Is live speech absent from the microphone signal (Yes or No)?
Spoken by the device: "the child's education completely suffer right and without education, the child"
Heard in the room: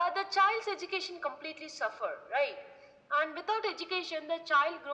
Yes